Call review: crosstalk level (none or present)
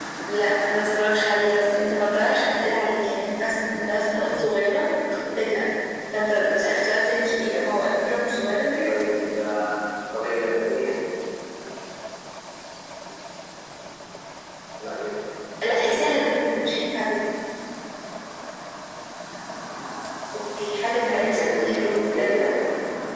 present